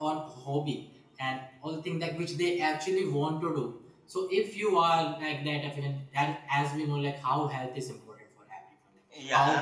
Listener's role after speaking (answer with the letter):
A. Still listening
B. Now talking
A